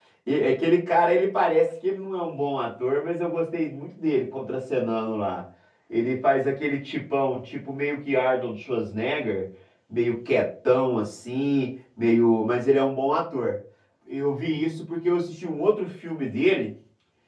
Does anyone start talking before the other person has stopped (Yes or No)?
No